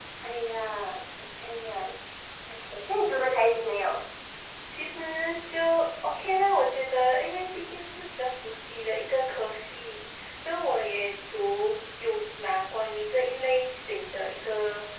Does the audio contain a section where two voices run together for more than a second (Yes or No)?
No